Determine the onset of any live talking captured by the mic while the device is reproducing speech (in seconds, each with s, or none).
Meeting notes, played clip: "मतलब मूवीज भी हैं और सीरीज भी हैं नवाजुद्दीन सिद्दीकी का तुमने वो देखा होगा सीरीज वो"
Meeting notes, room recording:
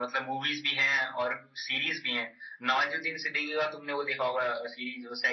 none